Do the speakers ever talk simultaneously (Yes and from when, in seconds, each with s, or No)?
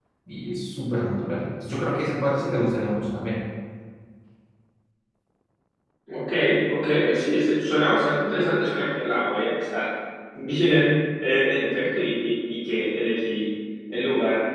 No